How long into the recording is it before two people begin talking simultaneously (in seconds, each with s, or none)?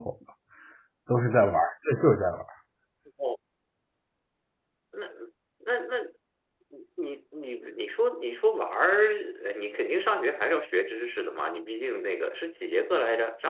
none